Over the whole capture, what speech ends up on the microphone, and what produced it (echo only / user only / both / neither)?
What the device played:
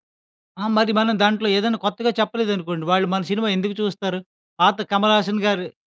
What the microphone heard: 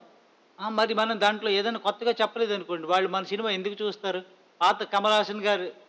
echo only